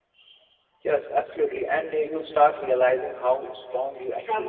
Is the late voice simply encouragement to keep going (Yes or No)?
No